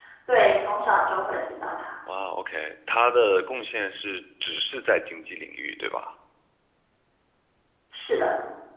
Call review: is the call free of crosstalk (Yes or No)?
Yes